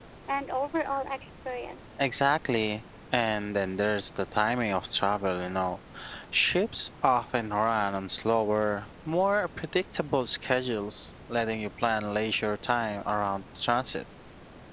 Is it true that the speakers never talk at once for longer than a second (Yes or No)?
Yes